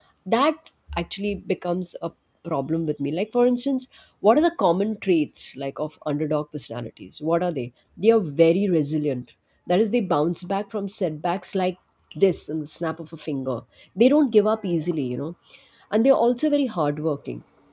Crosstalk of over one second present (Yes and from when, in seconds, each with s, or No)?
No